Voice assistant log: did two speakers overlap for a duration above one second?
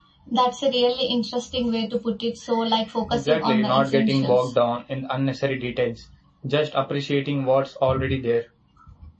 Yes, from 3.1 s

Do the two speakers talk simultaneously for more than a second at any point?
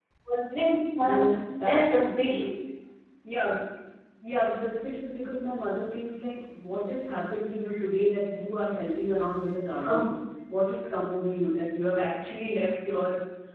Yes, from 1.0 s

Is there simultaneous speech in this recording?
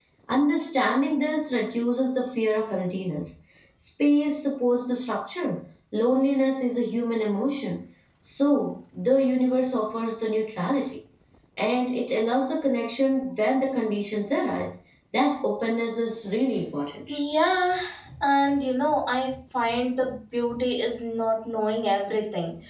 No

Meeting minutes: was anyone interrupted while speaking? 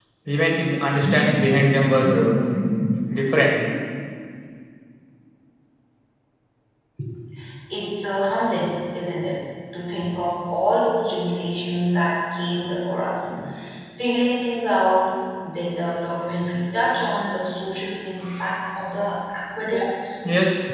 No

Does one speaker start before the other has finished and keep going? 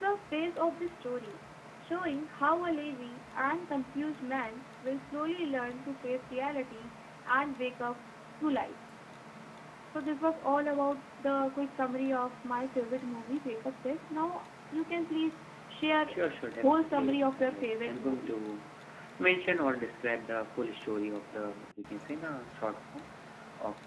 Yes, from 16.5 s

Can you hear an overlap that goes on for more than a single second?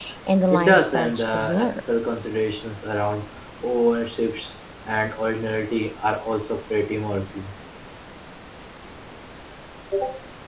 Yes, from 0.5 s

